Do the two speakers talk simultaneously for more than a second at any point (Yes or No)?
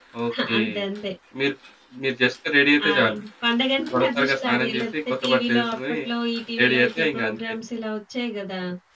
Yes